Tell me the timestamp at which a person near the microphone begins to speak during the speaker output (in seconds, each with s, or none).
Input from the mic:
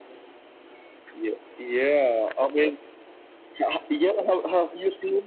none